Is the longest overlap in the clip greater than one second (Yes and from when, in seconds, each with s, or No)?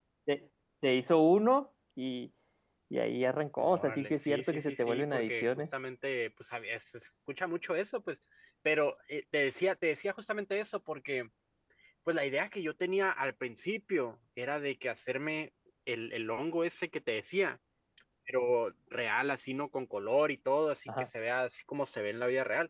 Yes, from 3.6 s